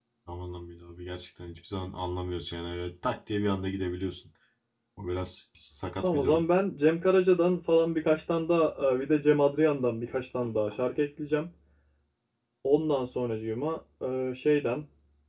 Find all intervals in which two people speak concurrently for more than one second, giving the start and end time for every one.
none

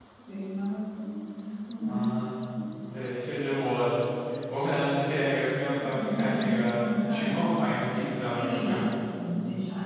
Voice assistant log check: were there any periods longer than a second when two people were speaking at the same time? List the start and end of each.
5.8-7.4

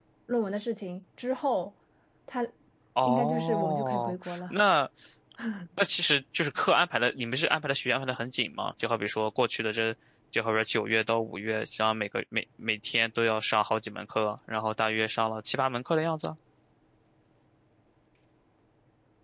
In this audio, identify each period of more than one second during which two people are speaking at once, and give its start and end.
3.0-4.5

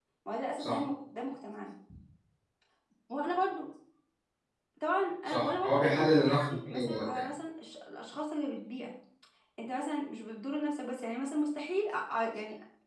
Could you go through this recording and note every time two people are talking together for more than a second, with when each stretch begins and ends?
5.2-7.3

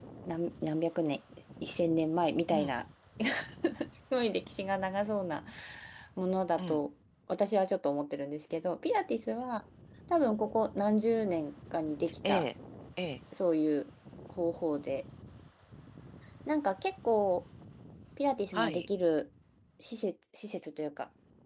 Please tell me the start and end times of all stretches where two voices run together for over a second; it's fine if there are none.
none

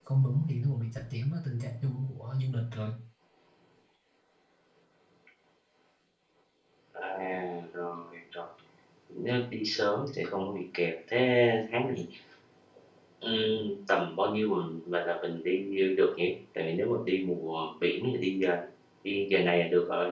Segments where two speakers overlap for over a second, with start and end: none

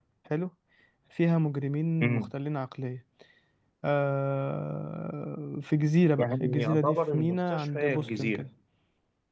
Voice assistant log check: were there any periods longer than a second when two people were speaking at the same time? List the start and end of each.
6.2-8.5

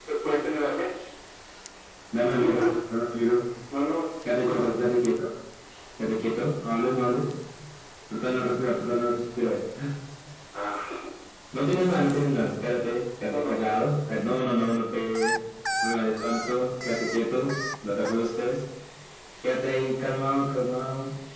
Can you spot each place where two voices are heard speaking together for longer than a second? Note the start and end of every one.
none

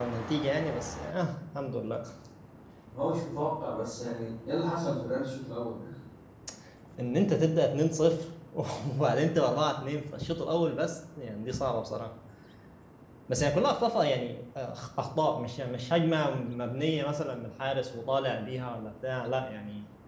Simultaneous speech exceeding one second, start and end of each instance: none

